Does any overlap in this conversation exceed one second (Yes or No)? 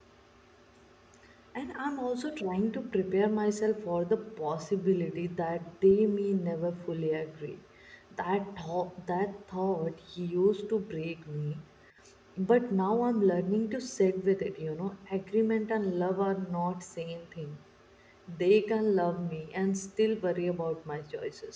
No